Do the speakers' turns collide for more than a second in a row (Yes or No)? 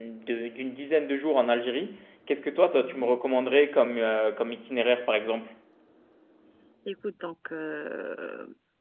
No